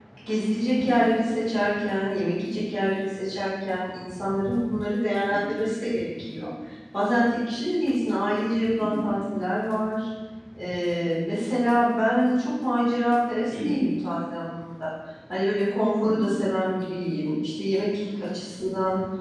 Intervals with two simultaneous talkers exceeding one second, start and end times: none

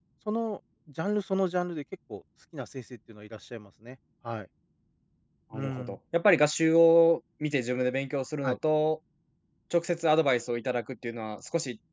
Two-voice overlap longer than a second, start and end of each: none

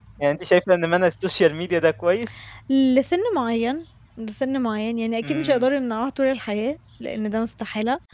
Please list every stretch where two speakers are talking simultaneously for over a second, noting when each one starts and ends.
none

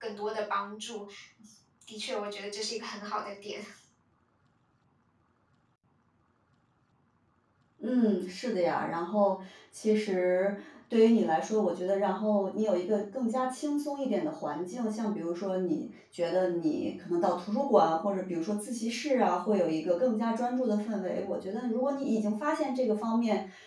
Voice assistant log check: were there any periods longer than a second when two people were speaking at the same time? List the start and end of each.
none

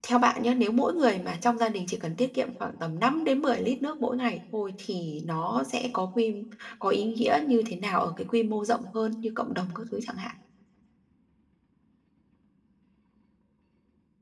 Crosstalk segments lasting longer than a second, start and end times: none

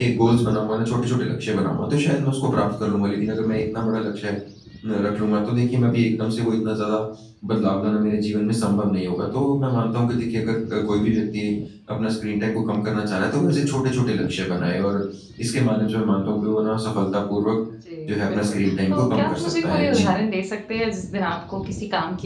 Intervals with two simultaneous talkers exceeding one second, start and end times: 18.3-20.1

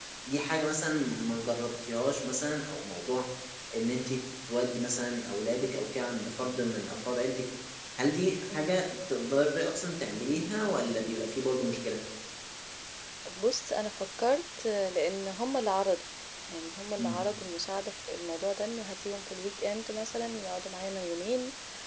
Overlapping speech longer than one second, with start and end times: none

